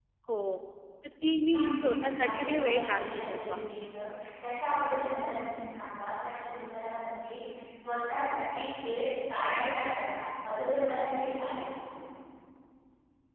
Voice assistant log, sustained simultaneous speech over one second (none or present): present